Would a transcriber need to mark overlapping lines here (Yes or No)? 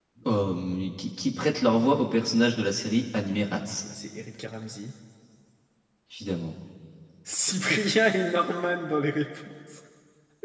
No